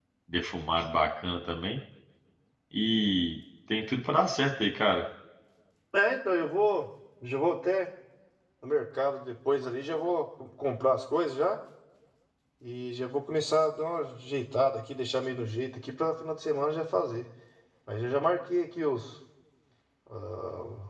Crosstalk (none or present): none